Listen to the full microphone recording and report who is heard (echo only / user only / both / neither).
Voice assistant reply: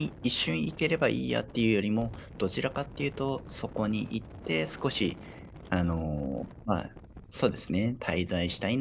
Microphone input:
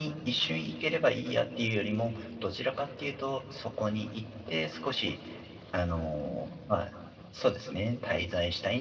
echo only